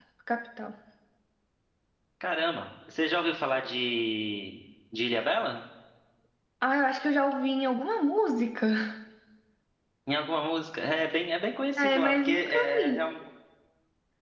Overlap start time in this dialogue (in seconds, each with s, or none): 11.8 s